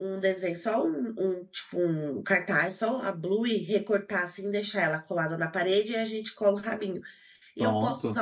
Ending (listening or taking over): listening